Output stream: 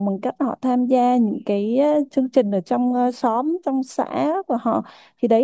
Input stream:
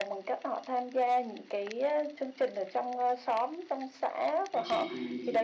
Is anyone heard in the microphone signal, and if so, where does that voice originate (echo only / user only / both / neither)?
both